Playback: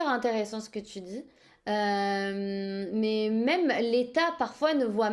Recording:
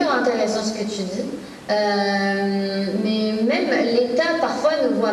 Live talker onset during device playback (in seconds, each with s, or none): none